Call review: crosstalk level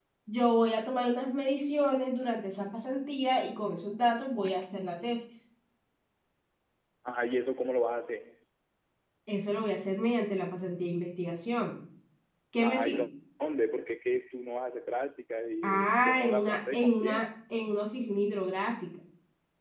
present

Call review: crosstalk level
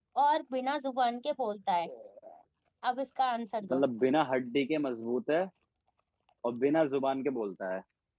none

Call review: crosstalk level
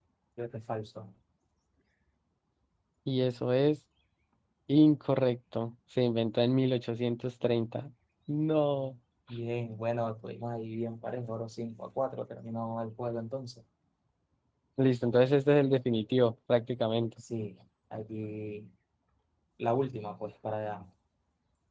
none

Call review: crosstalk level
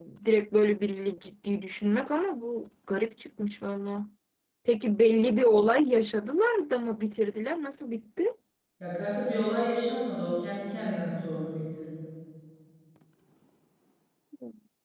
none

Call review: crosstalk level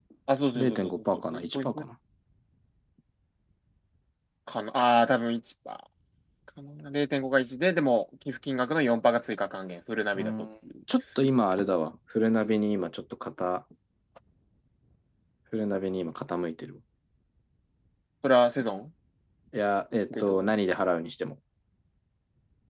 present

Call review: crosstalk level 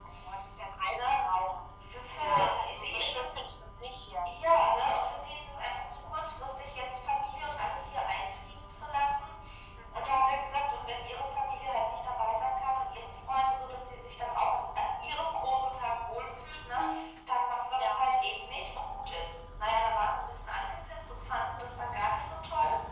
present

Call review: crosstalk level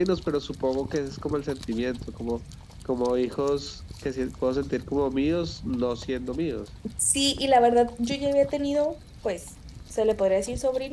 none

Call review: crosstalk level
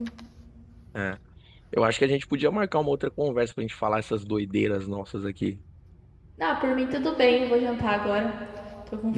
none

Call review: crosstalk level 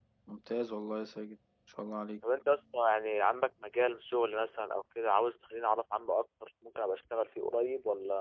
none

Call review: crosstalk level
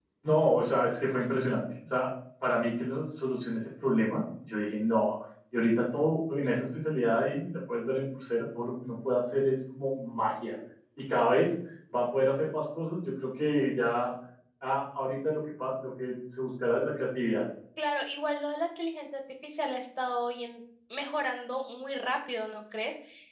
none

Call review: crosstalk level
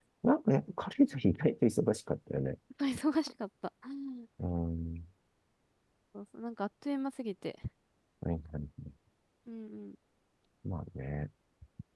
none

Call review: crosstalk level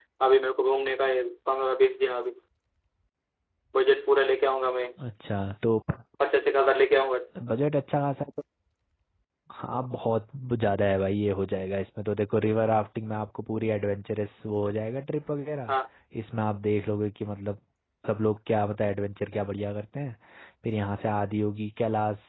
none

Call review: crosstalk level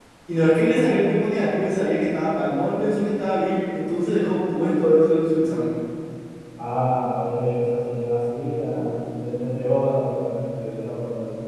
none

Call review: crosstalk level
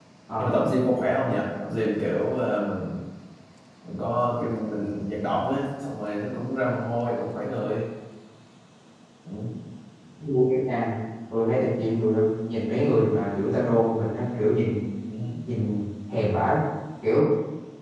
none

